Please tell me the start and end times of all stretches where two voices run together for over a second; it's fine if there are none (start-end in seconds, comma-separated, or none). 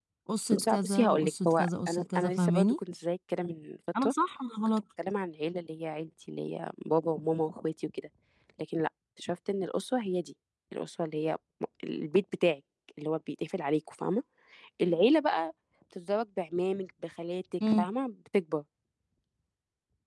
0.5-2.8